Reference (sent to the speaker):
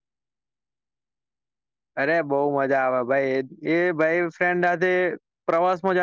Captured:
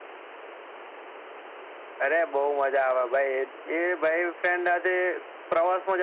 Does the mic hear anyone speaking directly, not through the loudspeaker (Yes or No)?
No